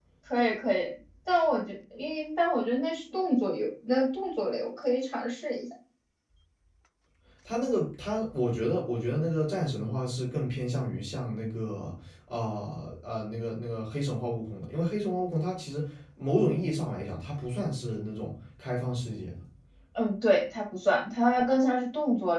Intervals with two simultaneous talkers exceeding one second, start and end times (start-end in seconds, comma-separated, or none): none